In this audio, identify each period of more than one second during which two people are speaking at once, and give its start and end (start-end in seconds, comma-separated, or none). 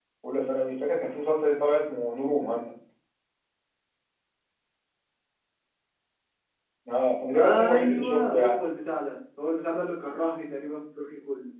7.4-8.6